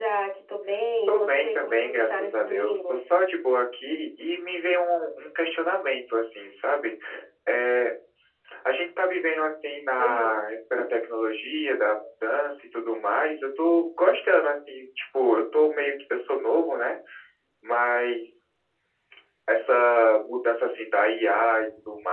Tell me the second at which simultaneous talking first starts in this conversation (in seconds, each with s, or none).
1.1 s